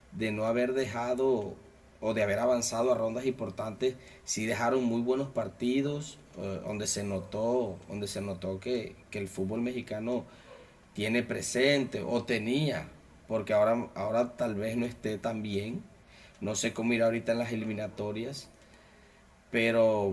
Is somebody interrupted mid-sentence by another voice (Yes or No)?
No